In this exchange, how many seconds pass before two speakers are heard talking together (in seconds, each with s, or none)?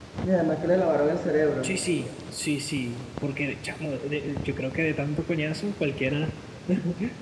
none